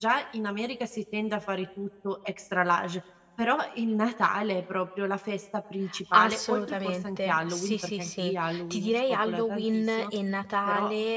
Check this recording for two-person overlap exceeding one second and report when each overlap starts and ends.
6.1-10.1

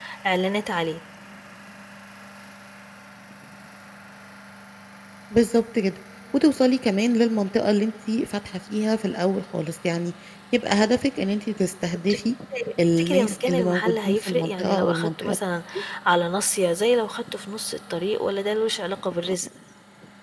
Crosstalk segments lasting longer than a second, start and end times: 13.0-15.3

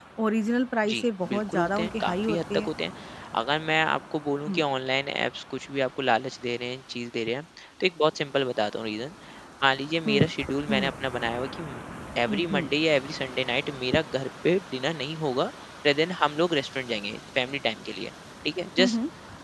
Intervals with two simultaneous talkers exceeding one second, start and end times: 0.9-2.7

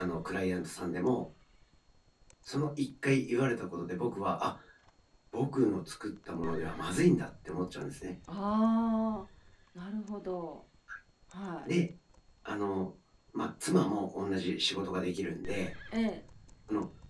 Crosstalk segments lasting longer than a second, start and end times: none

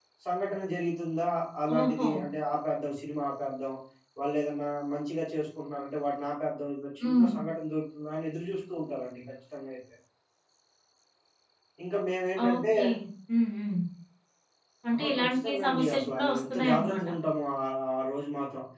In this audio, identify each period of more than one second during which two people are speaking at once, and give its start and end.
15.0-17.1

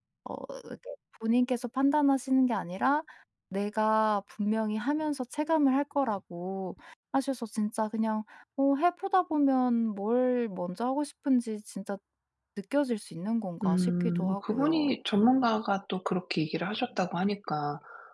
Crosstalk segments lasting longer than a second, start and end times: 13.6-14.9

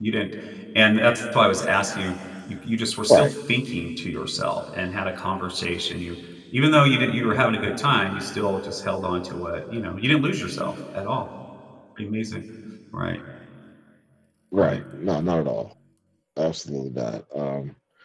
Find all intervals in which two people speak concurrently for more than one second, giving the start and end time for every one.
none

